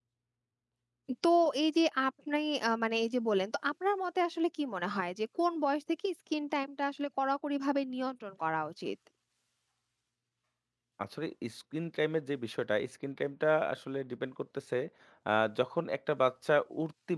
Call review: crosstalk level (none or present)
none